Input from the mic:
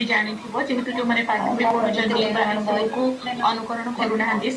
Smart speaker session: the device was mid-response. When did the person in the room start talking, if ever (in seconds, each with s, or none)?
2.2 s